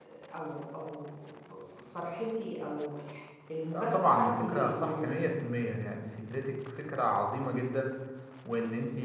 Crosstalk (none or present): present